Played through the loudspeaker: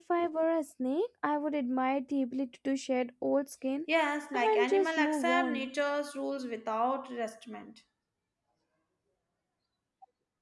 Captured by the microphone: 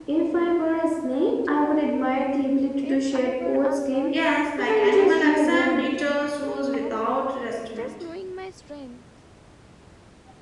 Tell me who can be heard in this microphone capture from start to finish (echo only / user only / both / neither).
both